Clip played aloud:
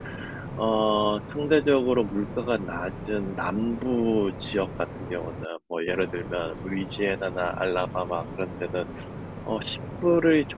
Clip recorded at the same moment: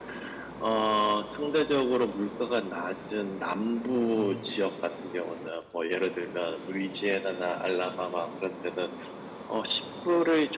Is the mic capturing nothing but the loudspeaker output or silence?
No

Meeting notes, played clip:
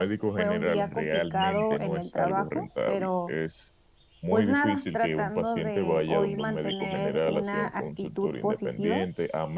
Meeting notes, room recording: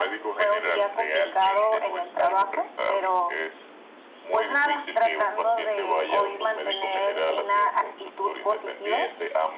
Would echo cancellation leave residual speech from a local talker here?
No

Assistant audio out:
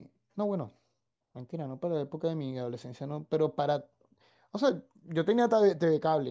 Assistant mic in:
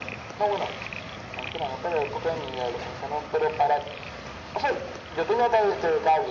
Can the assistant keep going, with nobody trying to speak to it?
Yes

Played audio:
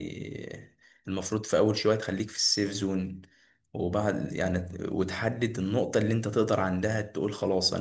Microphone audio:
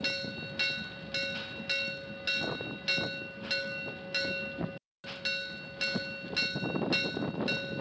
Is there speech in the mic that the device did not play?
No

